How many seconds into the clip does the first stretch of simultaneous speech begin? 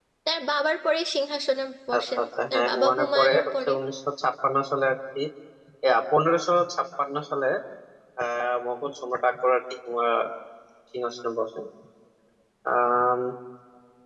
2 s

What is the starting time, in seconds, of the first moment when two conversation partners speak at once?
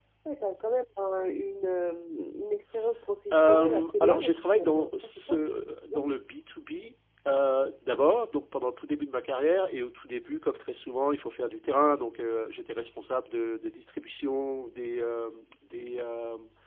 3 s

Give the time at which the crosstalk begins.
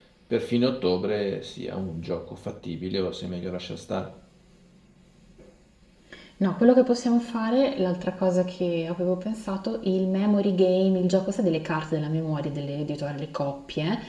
none

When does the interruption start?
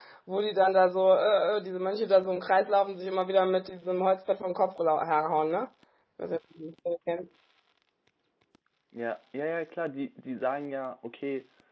none

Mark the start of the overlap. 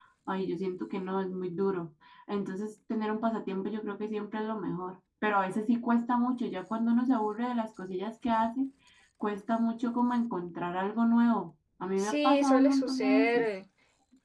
12 s

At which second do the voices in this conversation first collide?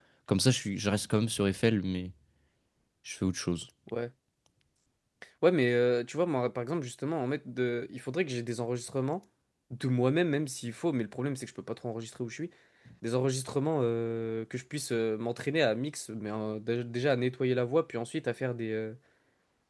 none

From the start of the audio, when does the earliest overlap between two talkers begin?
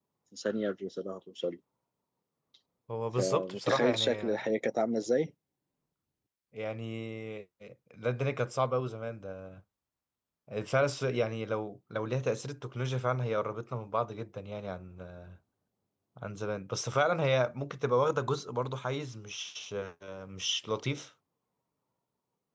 3 s

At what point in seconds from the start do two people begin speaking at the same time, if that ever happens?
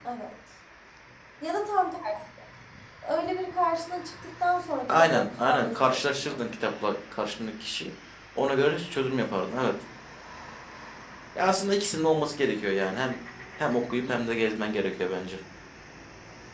5 s

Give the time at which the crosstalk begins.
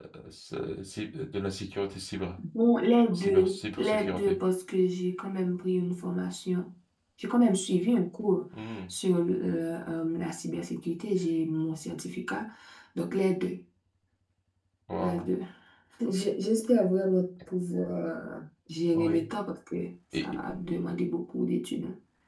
3 s

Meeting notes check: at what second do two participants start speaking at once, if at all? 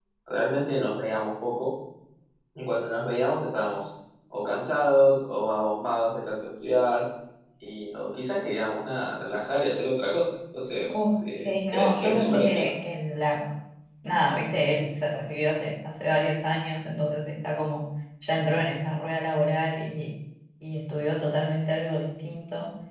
11 s

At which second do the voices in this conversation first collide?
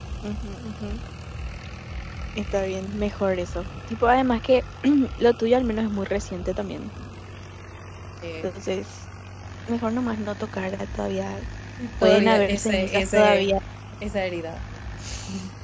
12 s

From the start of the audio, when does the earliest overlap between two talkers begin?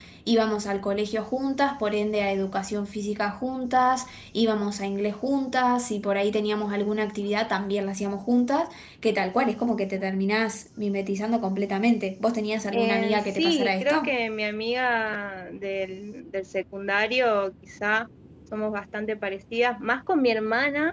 13 s

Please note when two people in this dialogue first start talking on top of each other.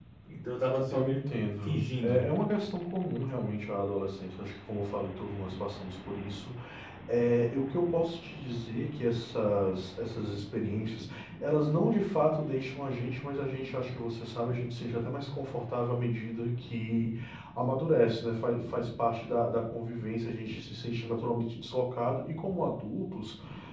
1 s

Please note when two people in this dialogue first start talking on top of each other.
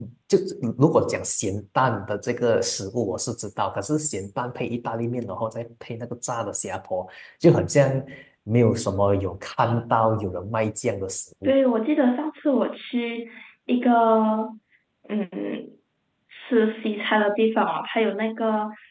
none

